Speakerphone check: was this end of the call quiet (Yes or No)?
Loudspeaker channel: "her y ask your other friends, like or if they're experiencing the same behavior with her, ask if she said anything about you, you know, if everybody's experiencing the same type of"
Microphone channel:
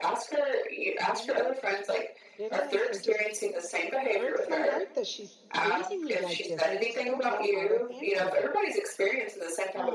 No